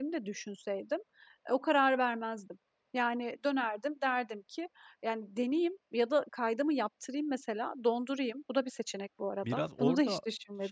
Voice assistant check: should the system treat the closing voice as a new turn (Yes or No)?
Yes